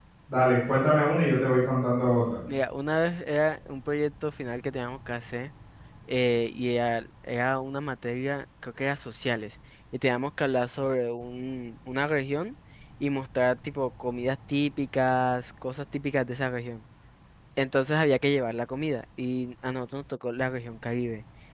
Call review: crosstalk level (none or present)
none